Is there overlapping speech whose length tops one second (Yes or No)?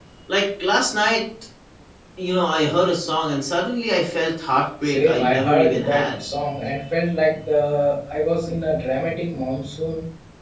Yes